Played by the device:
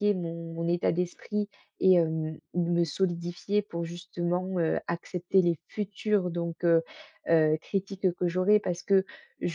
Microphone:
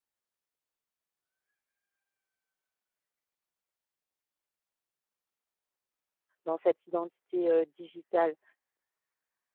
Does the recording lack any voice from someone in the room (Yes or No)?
No